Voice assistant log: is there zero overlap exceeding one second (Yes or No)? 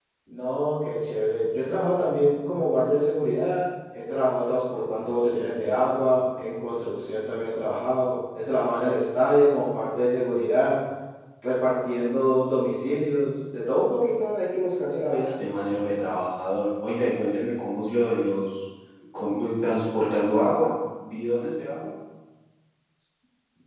Yes